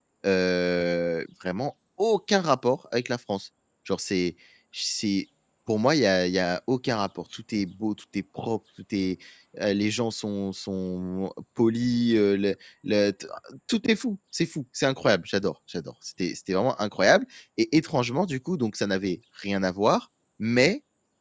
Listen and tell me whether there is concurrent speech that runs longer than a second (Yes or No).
No